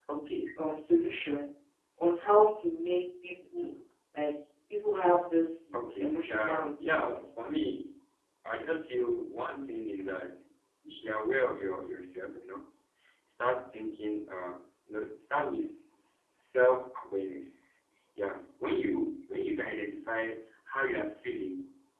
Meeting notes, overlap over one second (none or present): present